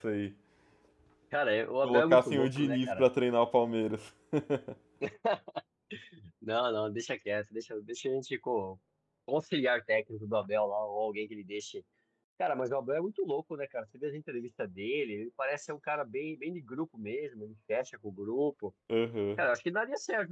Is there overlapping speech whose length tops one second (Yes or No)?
Yes